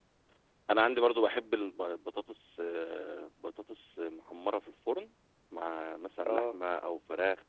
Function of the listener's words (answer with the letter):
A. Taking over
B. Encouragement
B